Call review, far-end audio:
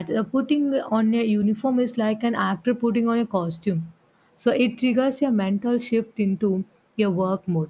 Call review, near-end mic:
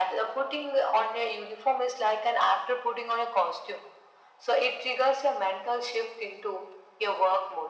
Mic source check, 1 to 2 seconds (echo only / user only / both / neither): echo only